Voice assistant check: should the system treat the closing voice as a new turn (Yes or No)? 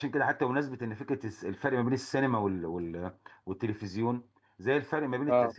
No